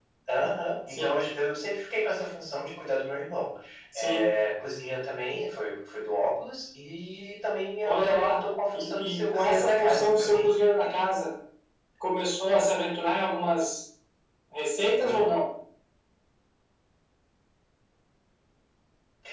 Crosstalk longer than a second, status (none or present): present